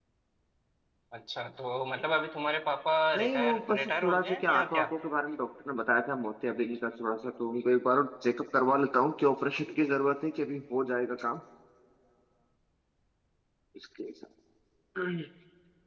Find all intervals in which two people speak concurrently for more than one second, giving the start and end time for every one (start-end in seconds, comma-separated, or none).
3.2-4.9